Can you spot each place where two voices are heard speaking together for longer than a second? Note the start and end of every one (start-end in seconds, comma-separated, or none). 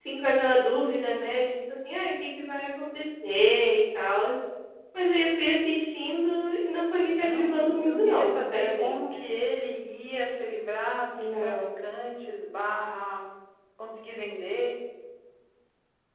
7.0-9.0